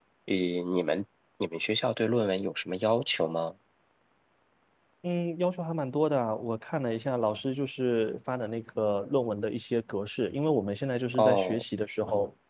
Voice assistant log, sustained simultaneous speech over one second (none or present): none